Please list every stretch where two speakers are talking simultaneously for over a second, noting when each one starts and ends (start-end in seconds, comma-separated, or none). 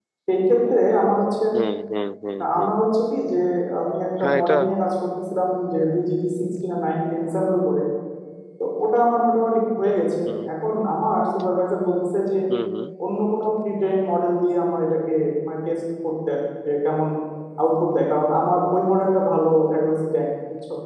none